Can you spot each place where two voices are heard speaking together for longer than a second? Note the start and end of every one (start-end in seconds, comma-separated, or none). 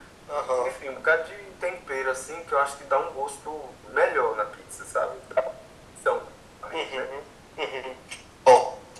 none